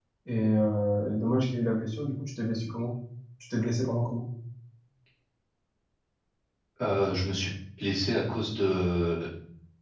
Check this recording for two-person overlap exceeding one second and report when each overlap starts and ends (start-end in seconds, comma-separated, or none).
none